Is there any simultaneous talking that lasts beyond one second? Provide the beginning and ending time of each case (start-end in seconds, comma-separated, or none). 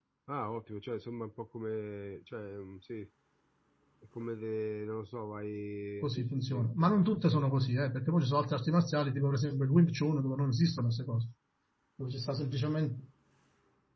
6.0-7.4